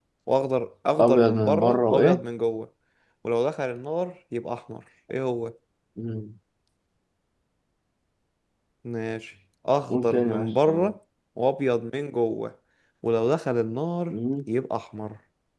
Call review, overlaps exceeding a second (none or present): present